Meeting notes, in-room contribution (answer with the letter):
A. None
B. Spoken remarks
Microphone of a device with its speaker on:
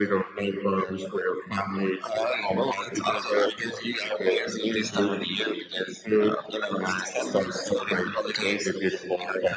A